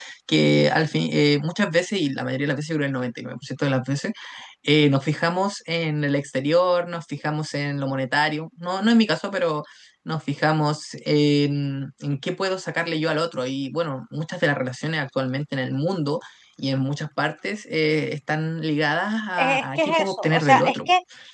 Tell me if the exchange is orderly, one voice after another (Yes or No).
No